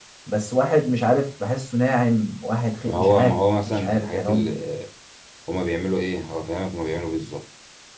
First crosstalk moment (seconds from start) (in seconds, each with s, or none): 2.8 s